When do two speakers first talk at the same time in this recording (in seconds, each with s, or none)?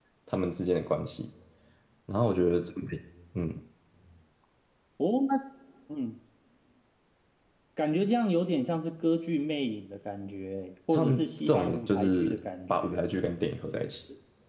10.9 s